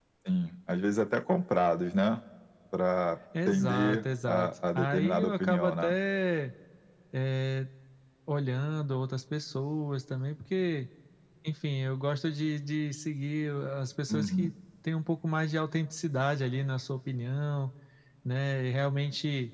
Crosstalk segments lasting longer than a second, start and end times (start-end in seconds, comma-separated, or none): 3.5-6.0